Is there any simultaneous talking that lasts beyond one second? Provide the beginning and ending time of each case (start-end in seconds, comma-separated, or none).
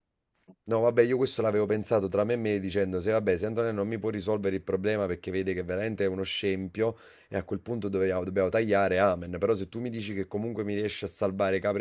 none